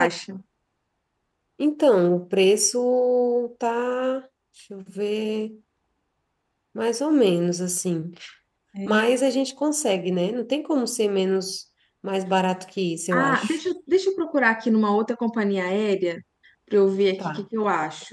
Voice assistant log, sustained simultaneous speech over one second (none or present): none